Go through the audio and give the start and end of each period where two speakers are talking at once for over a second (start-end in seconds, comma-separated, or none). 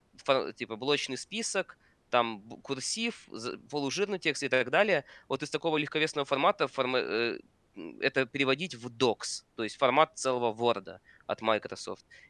none